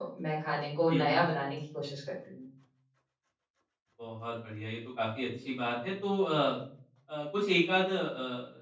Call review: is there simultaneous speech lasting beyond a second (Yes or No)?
No